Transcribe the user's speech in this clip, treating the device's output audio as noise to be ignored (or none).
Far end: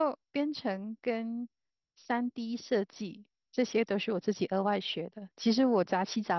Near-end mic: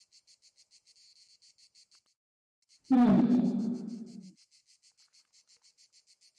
嗯。